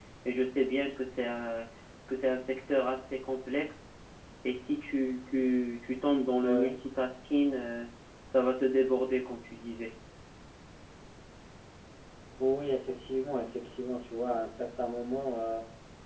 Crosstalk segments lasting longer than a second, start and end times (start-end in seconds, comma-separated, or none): none